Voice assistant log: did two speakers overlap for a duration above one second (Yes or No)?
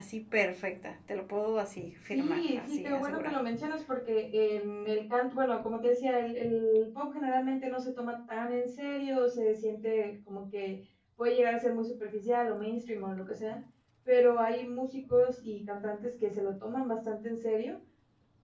Yes